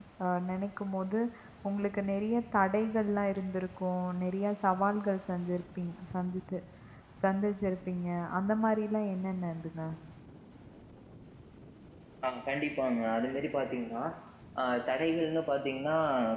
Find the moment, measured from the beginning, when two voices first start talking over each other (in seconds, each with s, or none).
none